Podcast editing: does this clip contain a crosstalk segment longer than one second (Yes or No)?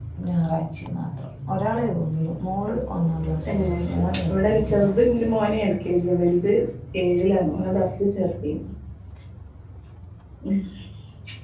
Yes